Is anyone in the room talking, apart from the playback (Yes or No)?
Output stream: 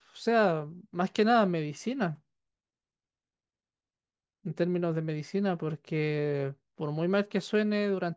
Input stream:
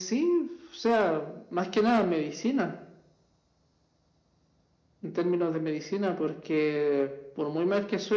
No